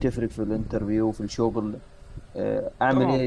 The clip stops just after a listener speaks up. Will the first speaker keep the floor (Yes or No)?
No